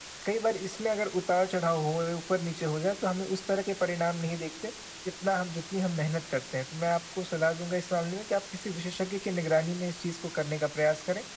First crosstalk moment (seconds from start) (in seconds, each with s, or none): none